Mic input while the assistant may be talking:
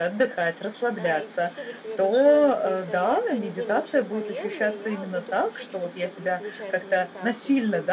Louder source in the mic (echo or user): echo